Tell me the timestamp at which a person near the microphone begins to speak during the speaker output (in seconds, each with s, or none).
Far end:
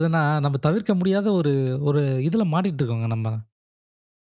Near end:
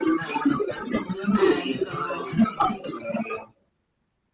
1.4 s